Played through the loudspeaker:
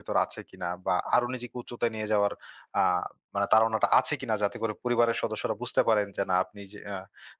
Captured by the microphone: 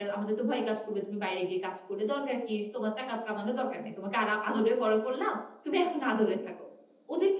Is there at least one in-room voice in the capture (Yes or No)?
Yes